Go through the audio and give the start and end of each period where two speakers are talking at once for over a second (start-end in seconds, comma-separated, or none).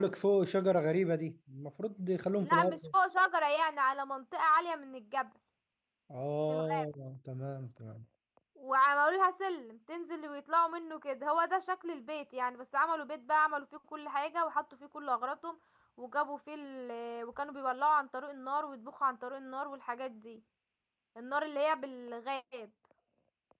none